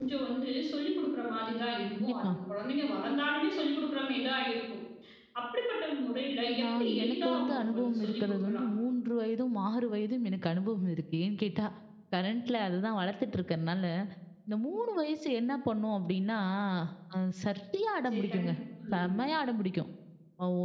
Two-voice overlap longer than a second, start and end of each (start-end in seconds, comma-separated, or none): 6.6-8.7